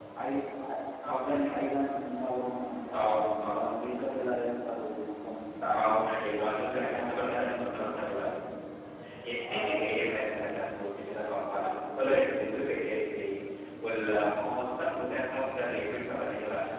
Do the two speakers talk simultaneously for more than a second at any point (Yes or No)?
Yes